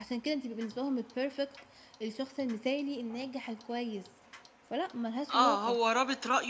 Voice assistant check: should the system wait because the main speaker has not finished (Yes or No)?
No